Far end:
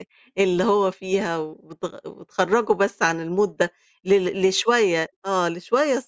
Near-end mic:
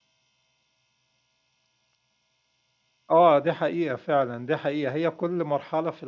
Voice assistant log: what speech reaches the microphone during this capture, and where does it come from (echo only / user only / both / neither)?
user only